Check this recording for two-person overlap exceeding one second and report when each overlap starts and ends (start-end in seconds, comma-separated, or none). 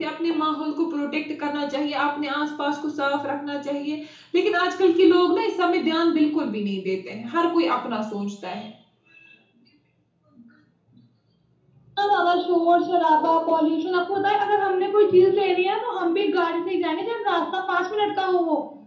none